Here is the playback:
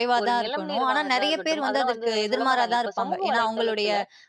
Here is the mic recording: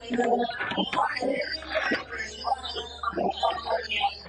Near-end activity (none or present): none